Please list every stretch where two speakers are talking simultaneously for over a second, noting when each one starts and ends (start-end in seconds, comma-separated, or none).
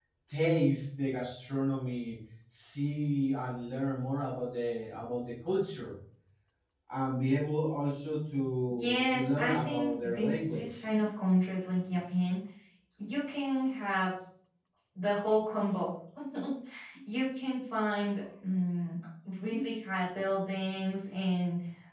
8.8-10.8